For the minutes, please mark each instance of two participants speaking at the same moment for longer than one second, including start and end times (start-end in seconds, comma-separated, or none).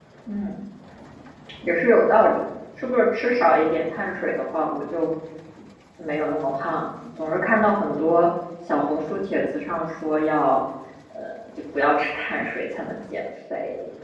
none